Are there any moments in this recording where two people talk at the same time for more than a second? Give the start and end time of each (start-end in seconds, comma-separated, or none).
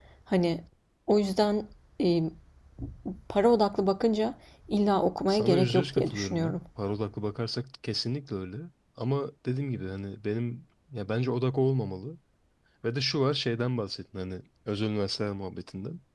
5.3-6.6